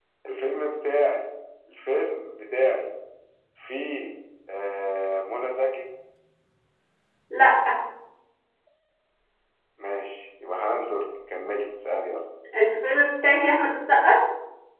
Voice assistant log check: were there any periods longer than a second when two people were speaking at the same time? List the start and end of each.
none

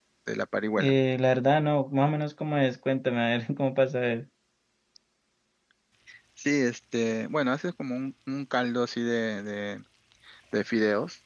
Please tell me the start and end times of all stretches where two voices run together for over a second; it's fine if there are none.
none

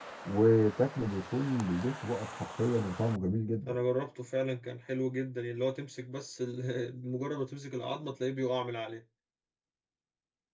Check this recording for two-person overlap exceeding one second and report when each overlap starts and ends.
none

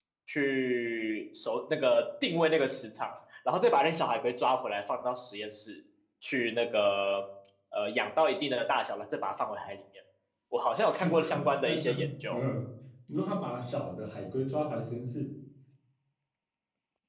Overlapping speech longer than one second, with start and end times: 10.9-12.4

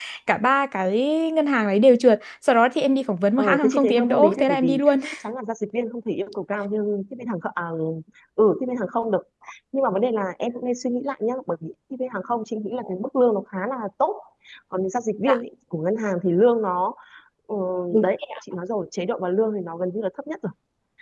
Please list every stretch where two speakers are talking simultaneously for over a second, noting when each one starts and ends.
3.4-4.9

